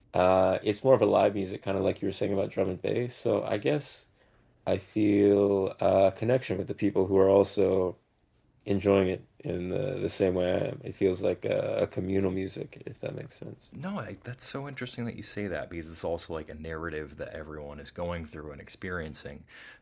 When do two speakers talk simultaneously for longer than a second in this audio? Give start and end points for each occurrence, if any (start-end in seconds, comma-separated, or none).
none